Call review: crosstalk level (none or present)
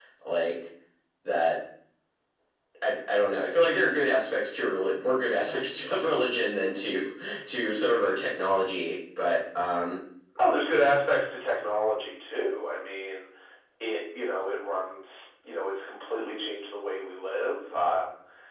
none